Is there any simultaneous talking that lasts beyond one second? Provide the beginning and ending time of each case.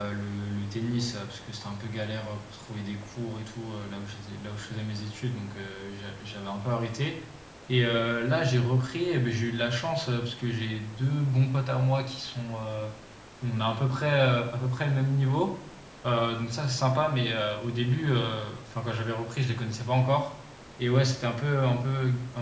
none

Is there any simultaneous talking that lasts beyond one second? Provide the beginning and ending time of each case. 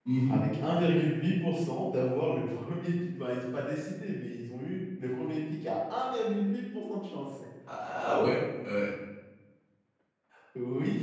none

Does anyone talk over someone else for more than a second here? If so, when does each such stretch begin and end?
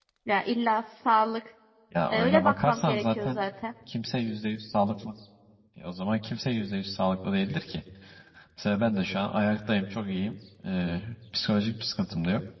2.1-3.4

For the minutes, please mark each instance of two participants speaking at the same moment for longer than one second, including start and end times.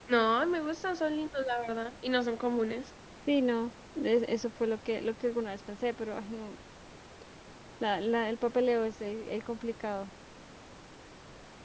none

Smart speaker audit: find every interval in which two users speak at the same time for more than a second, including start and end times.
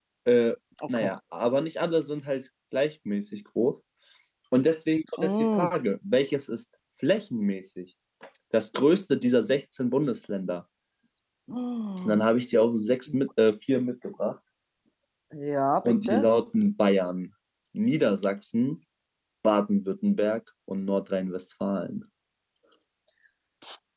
none

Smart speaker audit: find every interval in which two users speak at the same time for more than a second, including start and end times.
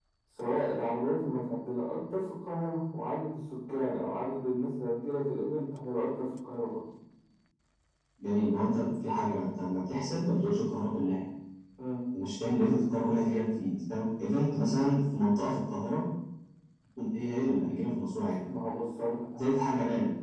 none

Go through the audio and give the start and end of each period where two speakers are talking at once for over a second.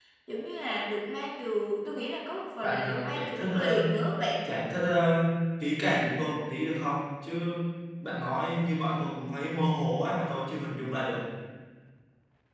2.6-3.9

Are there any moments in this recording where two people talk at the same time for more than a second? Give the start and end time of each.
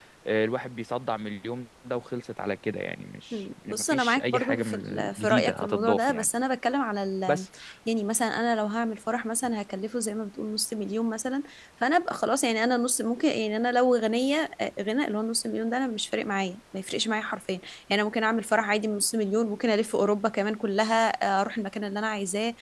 3.3-6.3

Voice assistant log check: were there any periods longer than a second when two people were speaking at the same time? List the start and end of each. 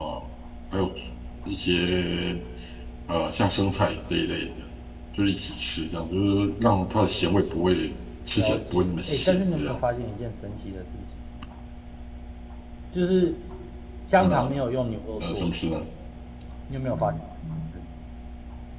8.4-9.9

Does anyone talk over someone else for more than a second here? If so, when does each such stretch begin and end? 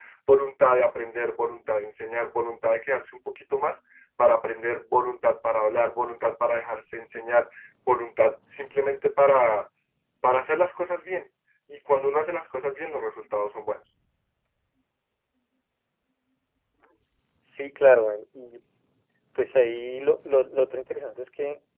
none

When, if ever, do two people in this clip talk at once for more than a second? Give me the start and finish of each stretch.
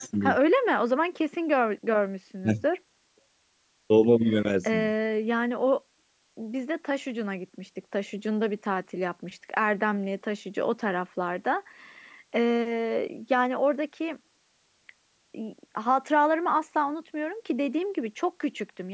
none

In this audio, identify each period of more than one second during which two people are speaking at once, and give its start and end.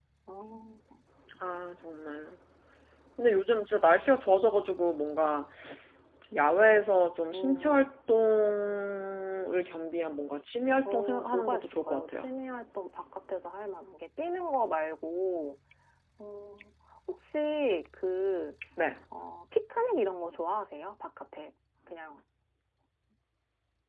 10.8-12.3

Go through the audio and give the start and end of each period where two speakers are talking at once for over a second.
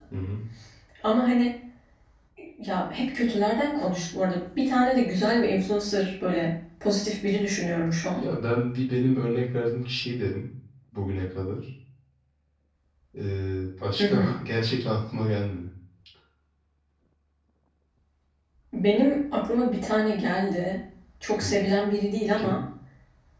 none

